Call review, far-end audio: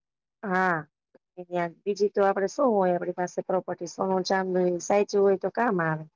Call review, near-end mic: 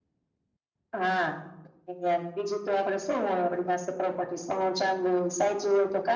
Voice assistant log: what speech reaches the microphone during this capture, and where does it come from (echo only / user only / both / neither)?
echo only